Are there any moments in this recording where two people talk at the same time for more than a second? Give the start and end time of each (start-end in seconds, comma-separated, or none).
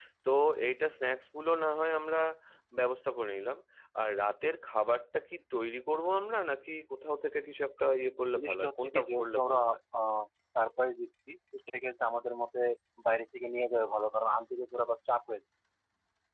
8.3-9.6